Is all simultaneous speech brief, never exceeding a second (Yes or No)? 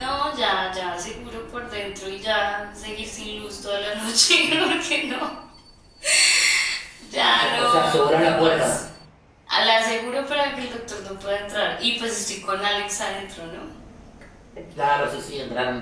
No